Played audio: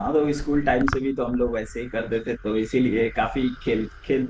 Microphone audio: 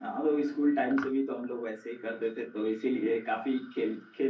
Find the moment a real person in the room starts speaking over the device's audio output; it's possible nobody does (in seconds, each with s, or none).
none